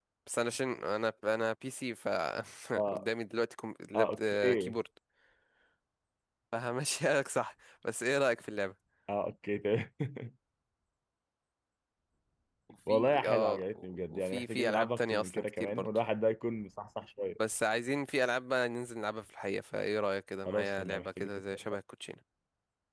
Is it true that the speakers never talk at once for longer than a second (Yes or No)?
No